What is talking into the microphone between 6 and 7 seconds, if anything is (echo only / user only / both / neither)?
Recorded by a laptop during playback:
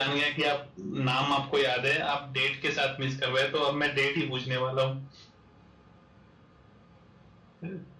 neither